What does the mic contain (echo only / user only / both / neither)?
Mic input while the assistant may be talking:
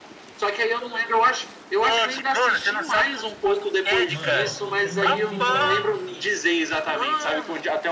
both